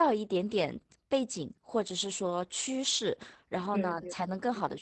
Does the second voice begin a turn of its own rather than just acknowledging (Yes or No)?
No